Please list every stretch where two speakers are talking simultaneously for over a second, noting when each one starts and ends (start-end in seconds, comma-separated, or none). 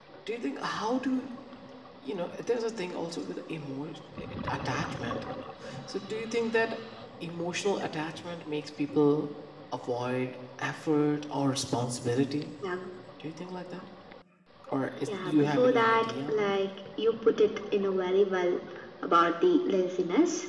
15.1-16.6